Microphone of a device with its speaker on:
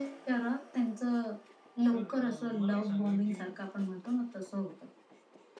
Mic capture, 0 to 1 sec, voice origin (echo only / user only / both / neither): echo only